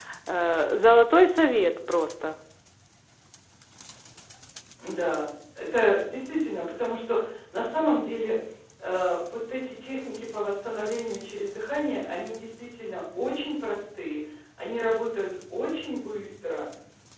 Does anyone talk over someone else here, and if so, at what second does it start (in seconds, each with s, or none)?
none